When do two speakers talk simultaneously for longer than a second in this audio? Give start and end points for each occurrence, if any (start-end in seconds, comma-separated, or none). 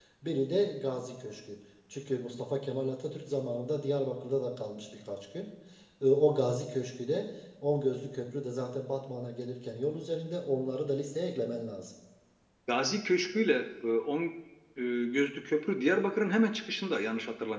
none